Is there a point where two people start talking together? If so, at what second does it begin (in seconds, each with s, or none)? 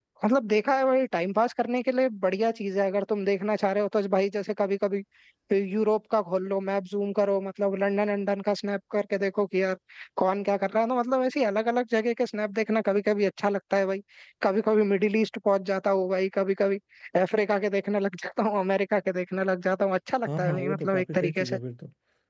20.3 s